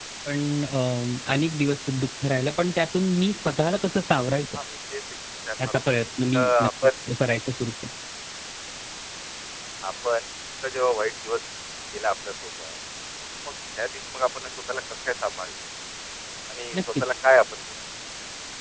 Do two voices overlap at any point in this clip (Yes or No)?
Yes